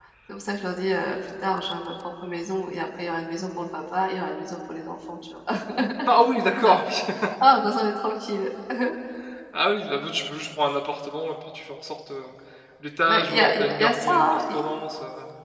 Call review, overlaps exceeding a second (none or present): present